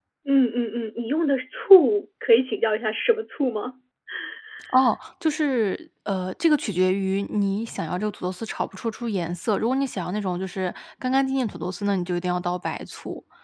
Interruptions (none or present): none